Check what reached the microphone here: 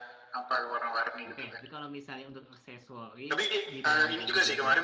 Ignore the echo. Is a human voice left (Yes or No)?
Yes